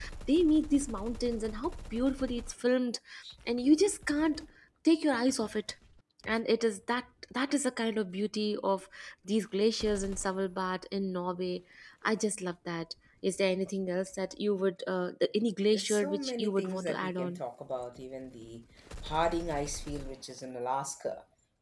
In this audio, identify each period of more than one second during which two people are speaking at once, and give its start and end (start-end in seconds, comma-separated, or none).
15.7-17.4